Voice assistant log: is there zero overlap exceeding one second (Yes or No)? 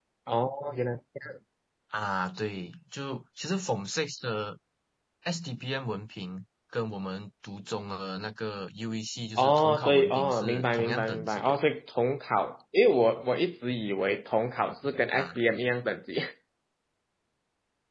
No